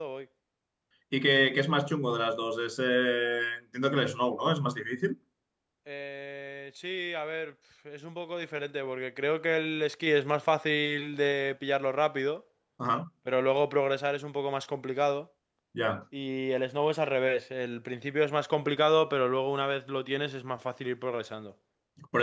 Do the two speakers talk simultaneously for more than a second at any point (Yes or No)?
No